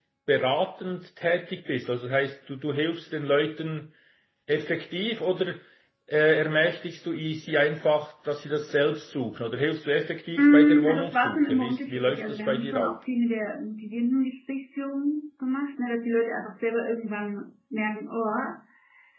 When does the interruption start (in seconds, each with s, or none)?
10.4 s